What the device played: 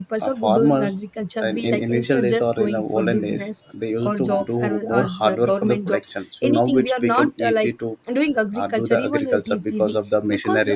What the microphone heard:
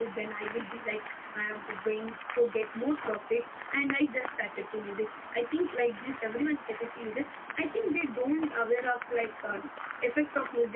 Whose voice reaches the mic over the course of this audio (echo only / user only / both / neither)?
user only